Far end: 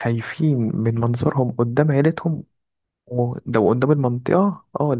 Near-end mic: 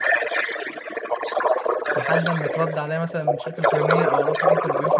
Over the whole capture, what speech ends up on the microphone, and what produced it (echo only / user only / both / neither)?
both